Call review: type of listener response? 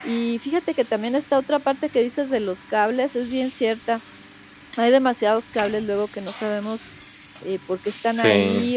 listening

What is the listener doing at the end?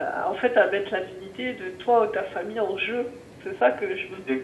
taking over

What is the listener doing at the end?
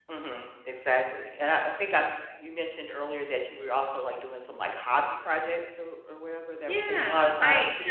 taking over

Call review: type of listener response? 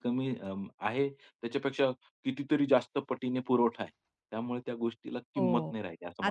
taking over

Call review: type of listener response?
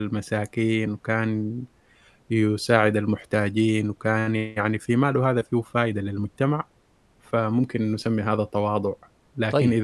listening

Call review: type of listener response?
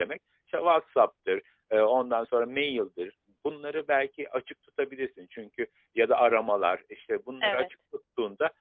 listening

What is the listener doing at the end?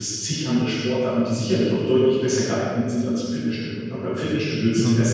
listening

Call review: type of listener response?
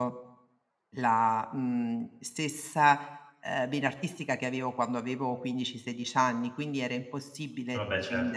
listening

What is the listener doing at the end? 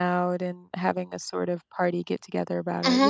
taking over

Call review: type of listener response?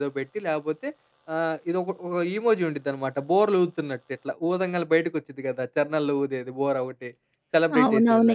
taking over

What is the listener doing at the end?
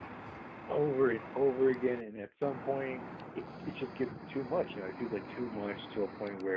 listening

